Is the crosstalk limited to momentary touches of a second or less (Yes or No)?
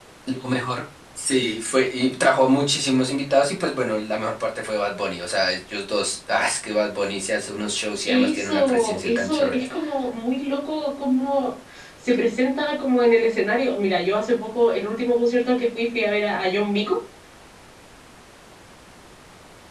No